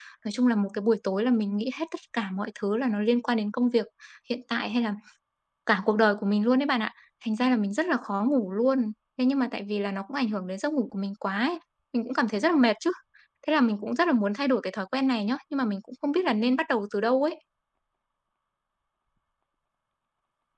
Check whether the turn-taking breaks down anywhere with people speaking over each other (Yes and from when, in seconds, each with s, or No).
No